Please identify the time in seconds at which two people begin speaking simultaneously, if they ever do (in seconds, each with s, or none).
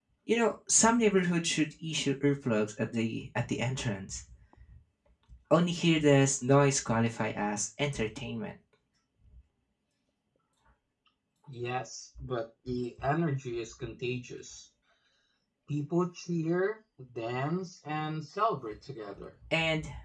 none